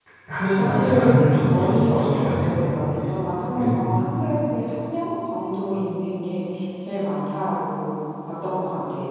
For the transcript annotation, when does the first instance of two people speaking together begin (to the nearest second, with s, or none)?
1 s